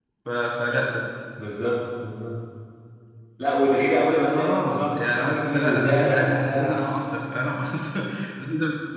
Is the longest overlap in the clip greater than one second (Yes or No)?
Yes